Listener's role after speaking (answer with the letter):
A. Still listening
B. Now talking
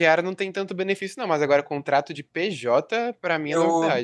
B